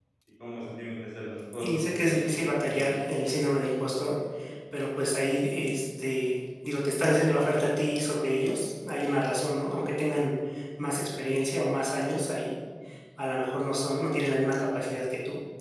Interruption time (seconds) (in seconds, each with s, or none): 1.5 s